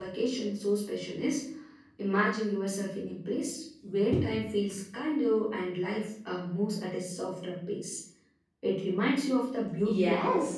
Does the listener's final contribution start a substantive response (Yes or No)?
Yes